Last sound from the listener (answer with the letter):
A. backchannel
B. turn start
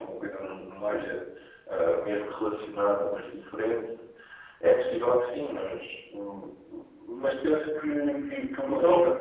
A